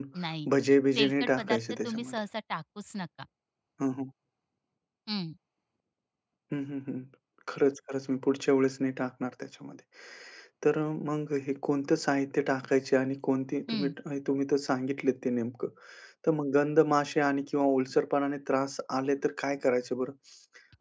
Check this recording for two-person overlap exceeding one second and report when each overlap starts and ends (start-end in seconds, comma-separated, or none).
0.9-2.2